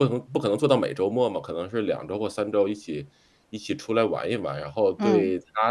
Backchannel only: Yes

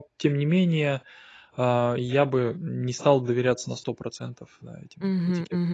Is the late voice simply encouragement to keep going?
No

